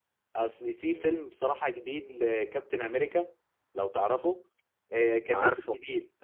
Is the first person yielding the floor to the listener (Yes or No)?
No